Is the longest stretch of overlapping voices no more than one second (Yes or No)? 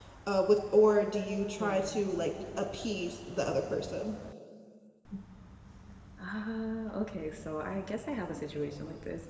Yes